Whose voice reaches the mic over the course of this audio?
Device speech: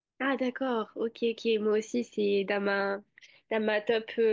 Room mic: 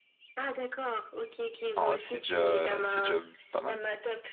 both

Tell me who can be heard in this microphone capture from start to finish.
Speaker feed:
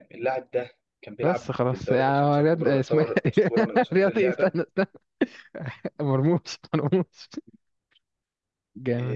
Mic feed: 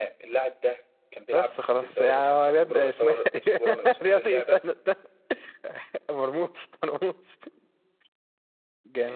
echo only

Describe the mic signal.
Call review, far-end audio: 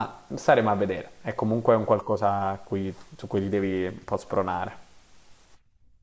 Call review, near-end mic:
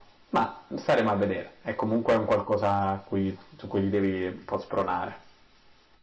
echo only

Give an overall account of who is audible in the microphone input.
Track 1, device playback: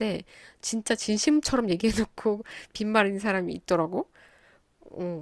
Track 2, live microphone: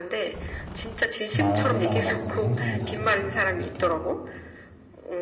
both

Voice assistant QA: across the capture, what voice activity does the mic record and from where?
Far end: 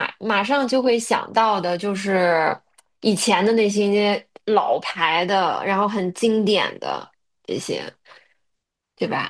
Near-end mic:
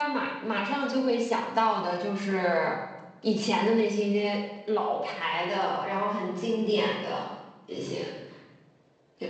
echo only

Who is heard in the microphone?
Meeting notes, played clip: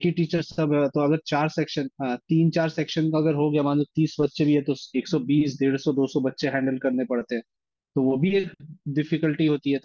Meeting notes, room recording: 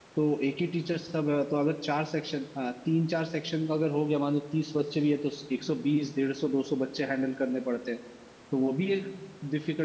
echo only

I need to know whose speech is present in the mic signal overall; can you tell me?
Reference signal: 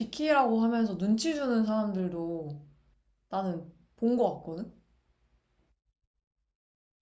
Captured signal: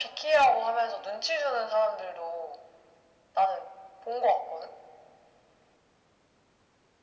echo only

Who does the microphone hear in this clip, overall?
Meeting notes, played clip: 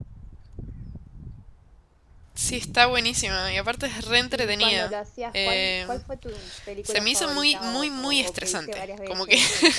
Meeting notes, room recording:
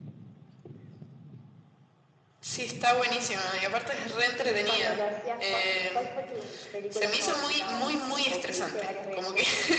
echo only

